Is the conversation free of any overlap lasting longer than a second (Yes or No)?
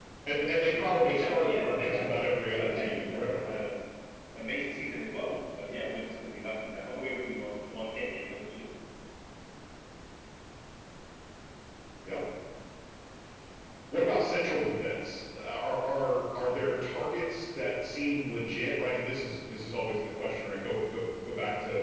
No